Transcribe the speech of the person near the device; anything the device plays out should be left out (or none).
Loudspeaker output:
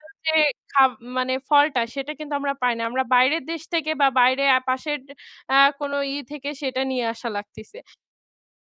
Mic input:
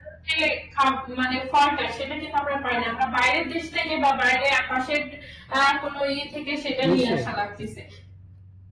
নিশ্চয়ই।